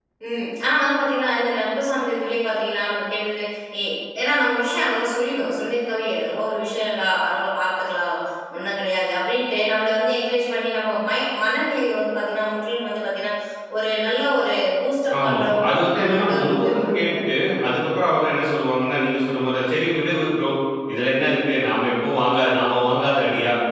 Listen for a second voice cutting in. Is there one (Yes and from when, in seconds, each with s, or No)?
Yes, from 15.1 s